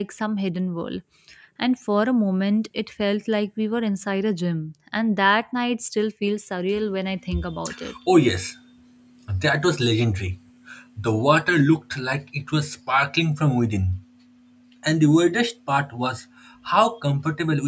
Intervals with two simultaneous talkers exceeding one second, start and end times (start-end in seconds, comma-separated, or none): none